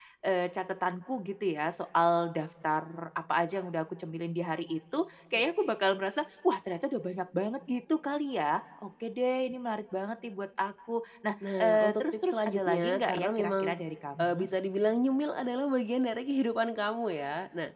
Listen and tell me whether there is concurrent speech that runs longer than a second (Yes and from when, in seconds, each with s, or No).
Yes, from 11.4 s